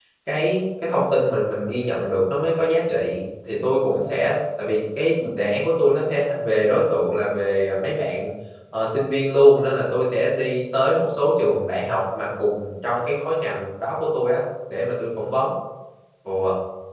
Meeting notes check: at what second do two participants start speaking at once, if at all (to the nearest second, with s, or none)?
none